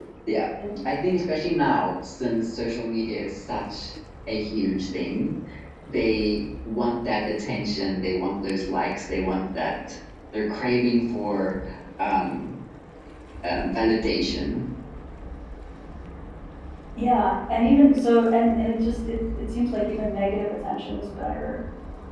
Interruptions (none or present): none